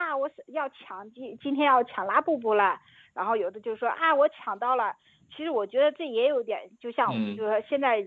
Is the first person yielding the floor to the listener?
No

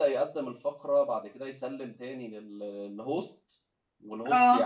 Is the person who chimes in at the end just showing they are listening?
Yes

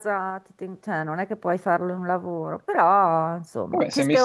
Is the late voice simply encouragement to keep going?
No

